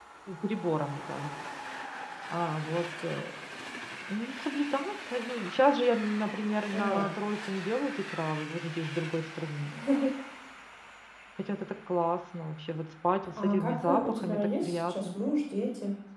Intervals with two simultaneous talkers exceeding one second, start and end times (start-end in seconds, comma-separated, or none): 13.4-15.1